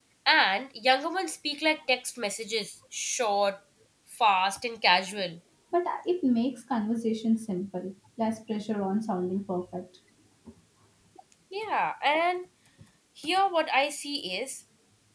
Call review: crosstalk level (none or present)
none